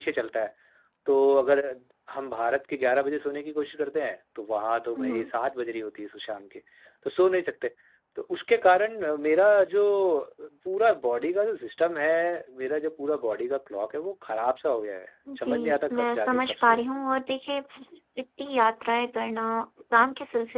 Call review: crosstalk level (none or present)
present